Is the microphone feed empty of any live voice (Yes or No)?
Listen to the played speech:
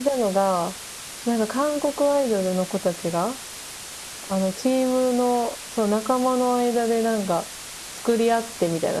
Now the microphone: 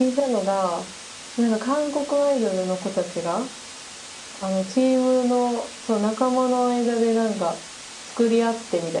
Yes